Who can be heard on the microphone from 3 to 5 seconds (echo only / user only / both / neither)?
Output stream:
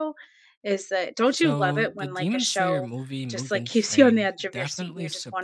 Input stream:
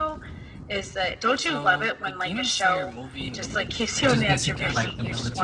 both